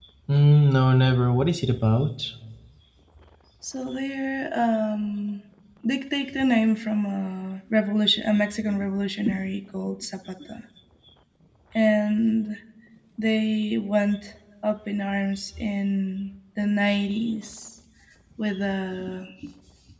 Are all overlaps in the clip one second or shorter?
Yes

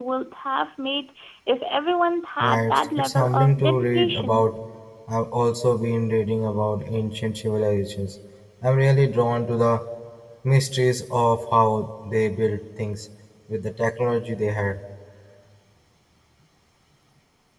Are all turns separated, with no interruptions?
No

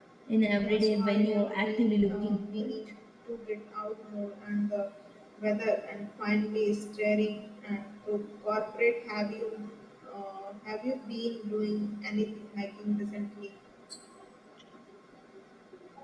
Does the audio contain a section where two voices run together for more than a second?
Yes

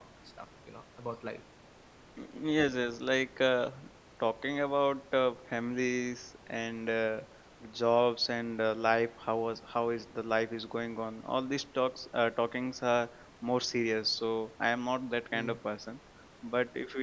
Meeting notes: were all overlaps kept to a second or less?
Yes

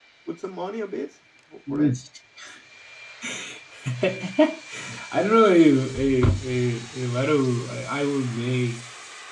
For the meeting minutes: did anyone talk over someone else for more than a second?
No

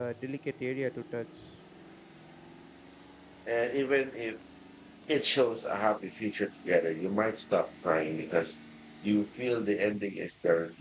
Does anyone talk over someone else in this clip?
No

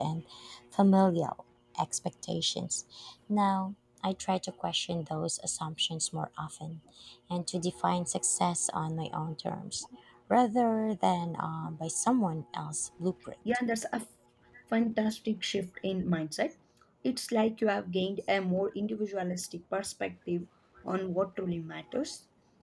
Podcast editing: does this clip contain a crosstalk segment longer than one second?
No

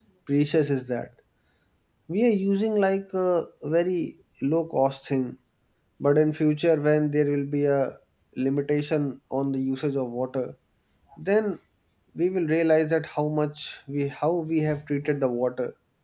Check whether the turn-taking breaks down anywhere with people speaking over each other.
No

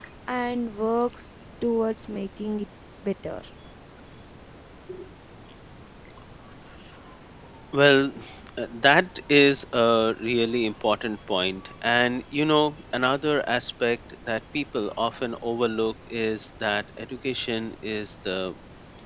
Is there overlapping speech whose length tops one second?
No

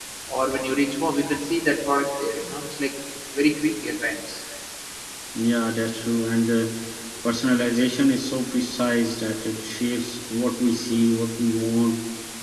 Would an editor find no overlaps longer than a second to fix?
Yes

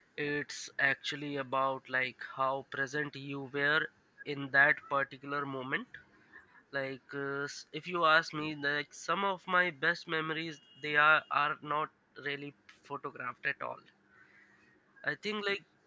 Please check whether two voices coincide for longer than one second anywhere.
No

